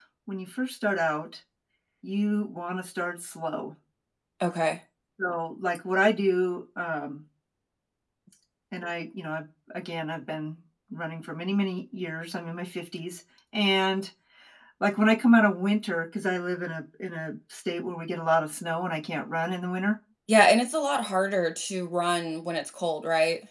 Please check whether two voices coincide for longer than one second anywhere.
No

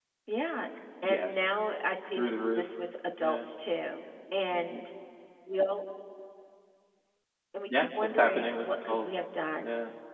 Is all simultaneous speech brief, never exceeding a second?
No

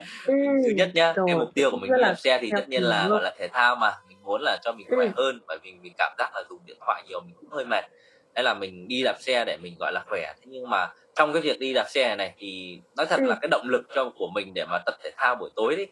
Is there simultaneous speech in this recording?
Yes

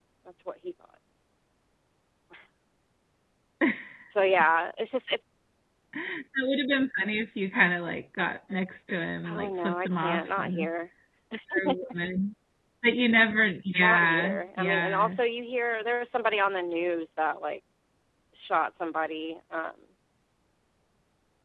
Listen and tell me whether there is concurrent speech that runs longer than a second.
Yes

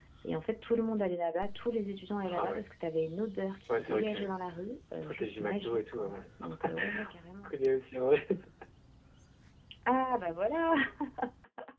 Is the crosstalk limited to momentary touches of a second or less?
No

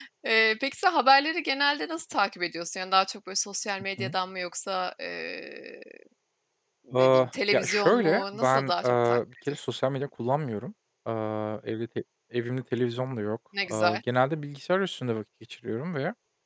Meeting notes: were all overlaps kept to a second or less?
No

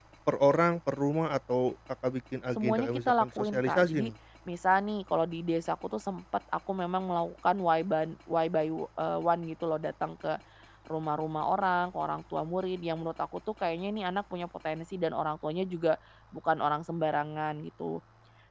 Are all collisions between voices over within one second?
No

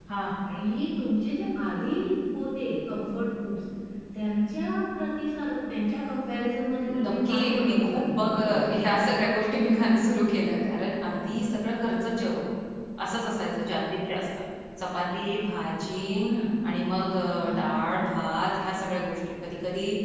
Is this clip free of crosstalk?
No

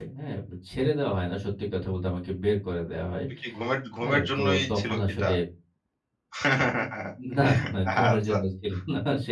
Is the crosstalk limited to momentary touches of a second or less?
No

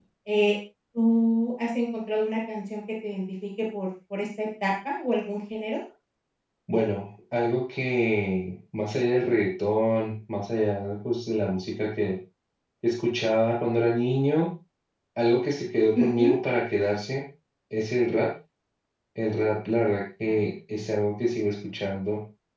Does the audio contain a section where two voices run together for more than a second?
No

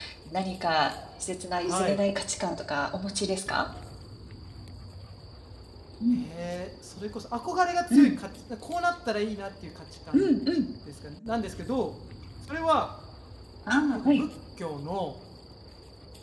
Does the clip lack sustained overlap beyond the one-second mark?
Yes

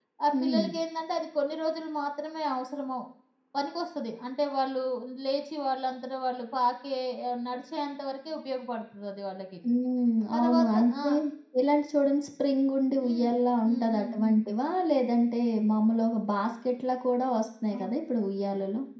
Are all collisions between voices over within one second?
No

